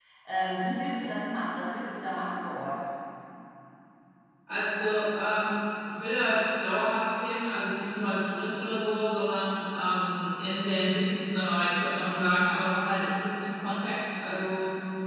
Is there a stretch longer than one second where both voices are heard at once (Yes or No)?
No